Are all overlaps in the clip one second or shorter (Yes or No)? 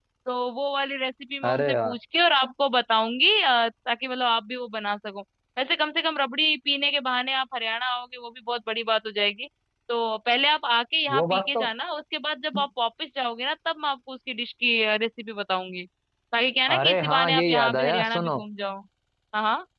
No